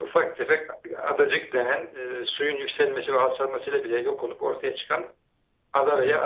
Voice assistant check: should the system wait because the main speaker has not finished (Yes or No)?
Yes